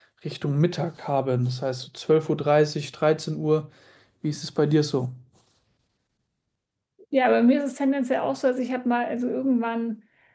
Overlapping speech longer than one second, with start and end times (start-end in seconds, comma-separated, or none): none